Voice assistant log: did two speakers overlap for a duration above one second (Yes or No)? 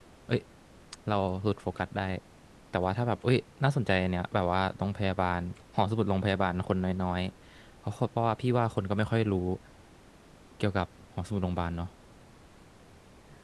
No